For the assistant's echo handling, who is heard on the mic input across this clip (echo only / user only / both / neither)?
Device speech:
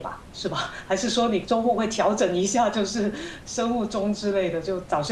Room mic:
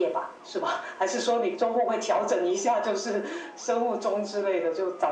echo only